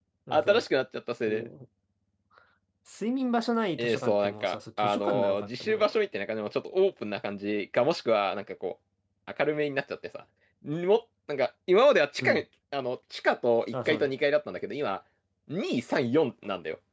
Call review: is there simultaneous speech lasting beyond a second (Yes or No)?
Yes